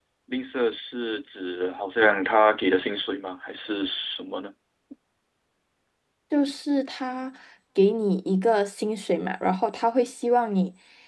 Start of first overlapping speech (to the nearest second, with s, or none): none